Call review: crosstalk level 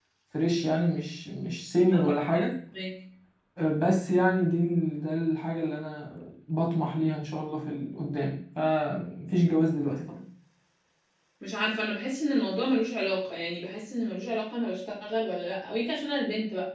none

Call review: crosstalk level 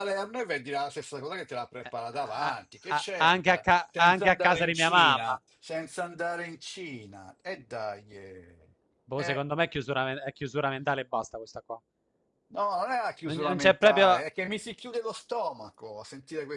present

